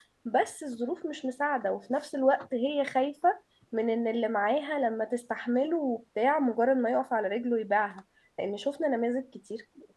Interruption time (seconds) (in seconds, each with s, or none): none